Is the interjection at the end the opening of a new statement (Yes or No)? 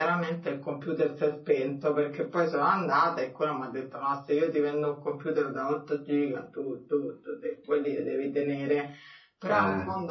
No